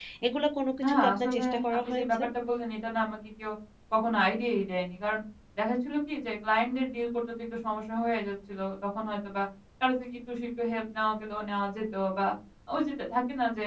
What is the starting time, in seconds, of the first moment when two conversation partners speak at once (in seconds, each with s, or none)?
0.8 s